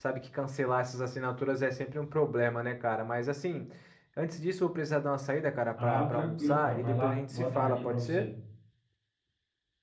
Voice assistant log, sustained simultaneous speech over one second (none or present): present